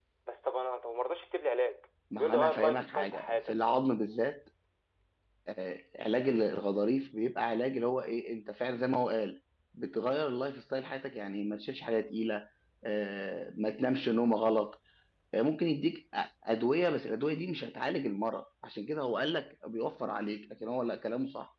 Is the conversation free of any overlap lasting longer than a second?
No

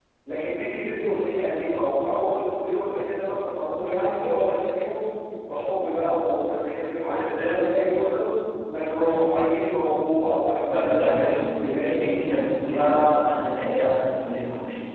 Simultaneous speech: Yes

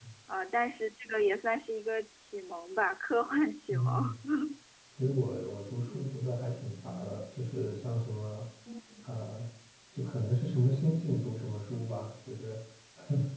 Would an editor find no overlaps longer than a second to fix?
Yes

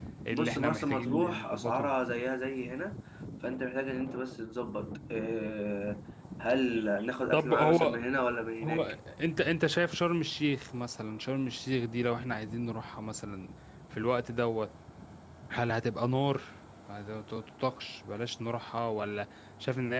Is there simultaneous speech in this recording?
Yes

